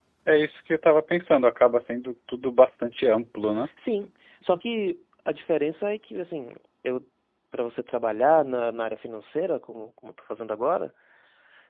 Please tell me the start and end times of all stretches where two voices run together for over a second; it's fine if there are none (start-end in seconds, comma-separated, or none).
none